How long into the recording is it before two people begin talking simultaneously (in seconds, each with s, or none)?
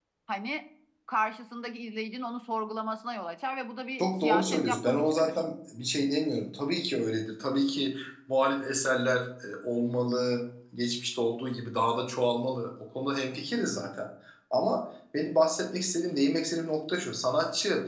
4.0 s